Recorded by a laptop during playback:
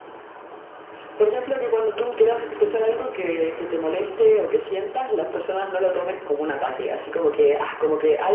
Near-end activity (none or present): none